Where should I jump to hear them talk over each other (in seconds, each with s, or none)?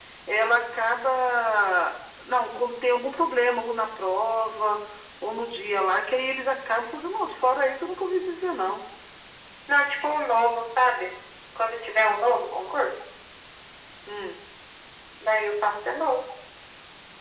none